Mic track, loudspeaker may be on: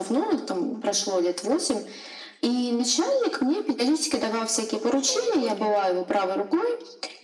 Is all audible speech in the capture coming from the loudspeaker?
No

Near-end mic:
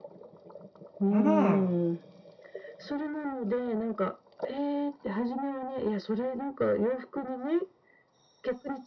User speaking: Yes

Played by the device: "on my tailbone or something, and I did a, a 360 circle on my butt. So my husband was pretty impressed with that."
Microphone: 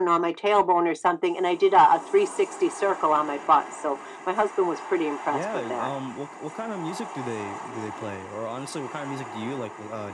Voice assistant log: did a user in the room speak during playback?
Yes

